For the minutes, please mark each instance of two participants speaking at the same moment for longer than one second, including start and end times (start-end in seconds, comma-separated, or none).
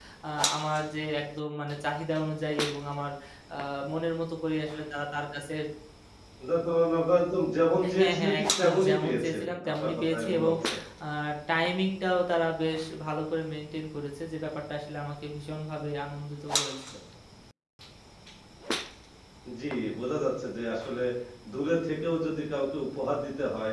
7.9-10.5